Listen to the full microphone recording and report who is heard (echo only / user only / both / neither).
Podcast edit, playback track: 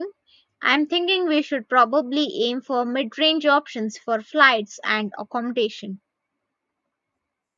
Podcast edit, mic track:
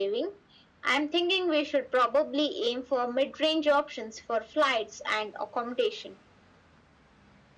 echo only